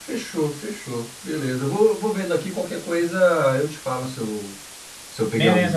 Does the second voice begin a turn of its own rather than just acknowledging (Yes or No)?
Yes